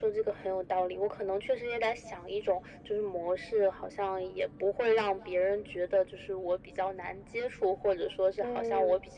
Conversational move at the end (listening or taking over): listening